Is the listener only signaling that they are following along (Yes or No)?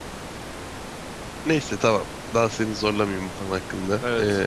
No